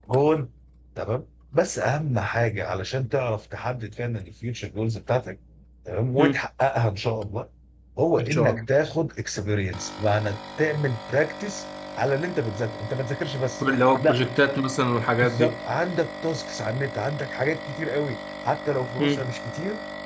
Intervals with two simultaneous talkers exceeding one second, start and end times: none

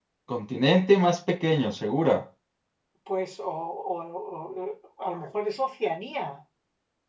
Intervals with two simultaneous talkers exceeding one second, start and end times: none

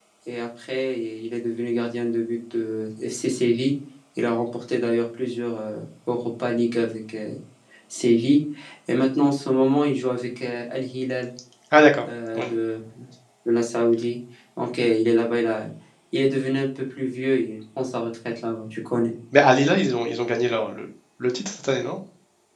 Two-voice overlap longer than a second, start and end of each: none

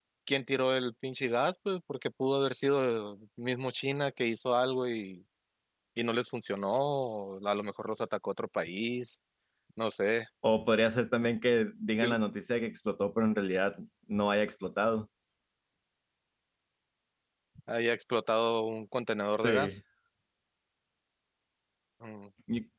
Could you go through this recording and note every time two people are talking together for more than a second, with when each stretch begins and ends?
none

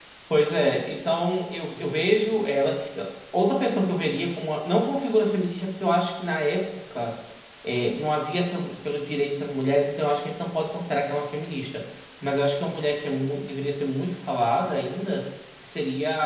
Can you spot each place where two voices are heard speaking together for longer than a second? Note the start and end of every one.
none

